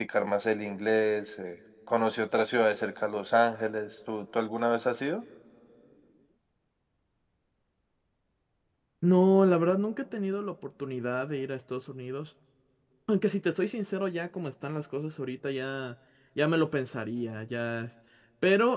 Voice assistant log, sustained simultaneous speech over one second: none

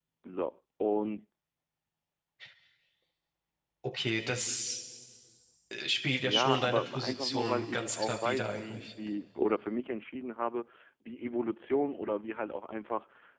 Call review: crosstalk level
present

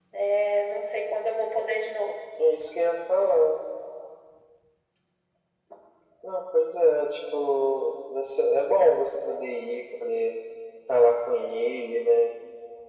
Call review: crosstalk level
none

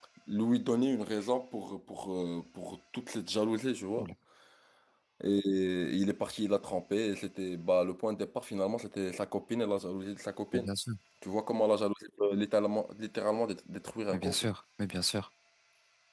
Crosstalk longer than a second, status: none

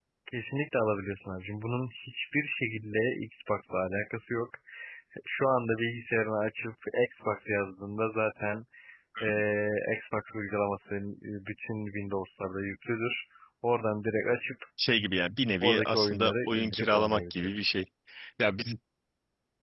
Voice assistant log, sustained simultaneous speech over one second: present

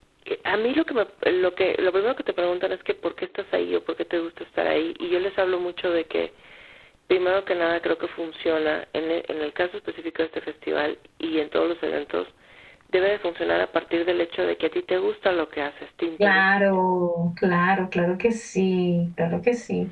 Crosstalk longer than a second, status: none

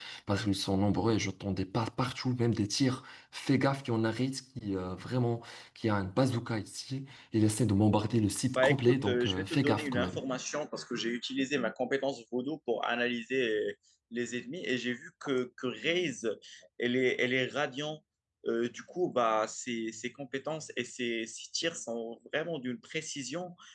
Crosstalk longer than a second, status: present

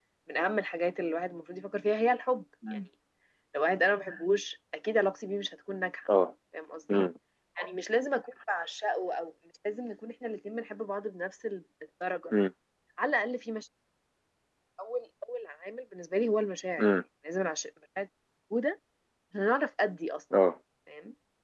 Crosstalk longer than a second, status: none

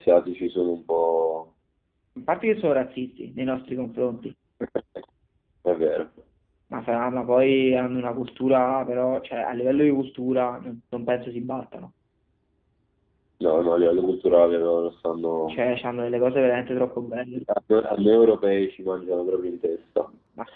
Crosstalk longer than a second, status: none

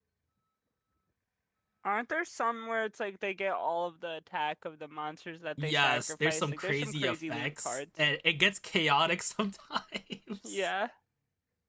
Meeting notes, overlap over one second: present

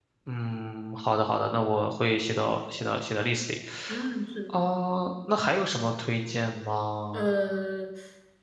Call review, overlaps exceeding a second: none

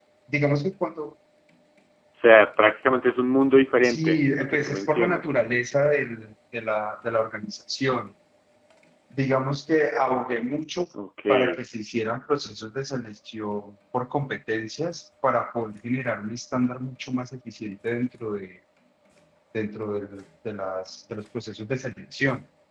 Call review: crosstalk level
present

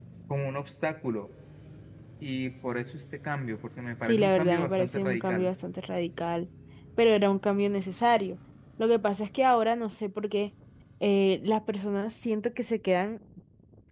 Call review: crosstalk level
present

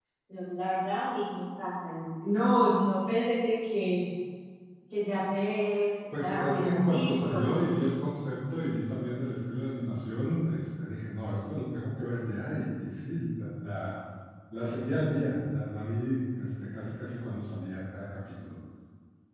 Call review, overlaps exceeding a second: present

